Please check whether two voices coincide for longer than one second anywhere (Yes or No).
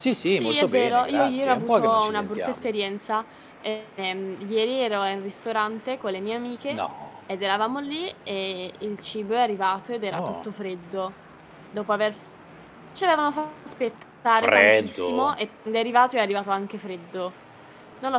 Yes